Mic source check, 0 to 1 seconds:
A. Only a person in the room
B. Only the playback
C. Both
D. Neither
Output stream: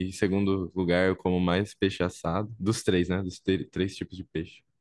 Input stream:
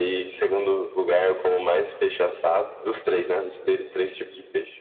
B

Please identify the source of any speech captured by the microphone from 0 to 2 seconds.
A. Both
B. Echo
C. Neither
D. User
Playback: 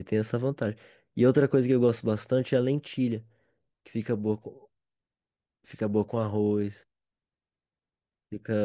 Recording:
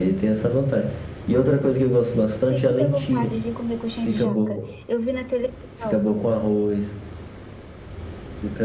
B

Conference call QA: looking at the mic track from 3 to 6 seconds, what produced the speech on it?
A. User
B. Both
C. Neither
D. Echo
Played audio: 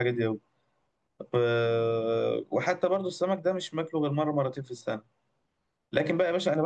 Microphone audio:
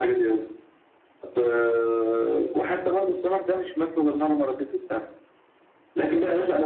D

